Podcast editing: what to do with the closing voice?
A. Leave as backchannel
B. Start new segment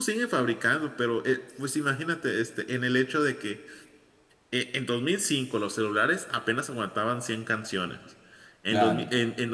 A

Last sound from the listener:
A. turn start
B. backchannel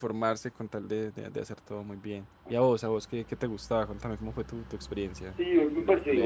A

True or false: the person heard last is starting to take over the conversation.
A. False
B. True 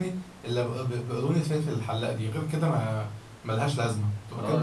B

